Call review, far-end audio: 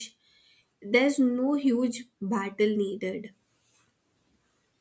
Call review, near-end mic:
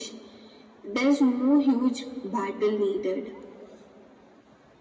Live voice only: none

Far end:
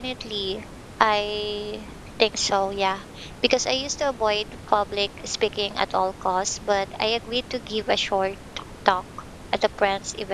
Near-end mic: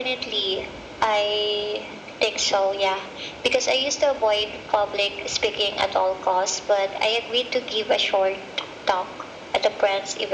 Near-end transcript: none

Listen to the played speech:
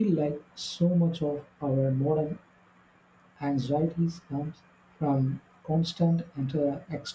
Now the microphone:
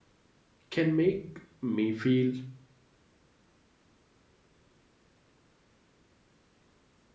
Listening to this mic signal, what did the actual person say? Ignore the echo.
can make me feel

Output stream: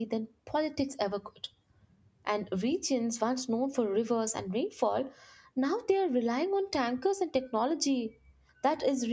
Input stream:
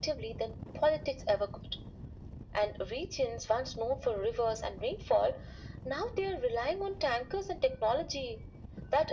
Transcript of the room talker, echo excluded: none

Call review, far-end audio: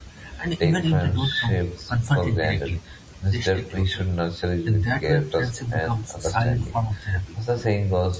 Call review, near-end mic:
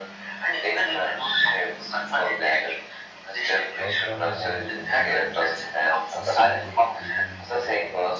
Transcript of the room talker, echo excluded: Lifelong bonds and memories. Some friendships begin in childhood

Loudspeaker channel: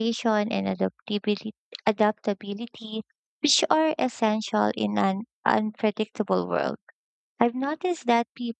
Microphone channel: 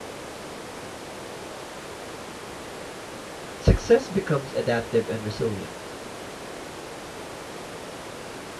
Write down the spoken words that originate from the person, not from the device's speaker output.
success becomes adaptive and resilient.

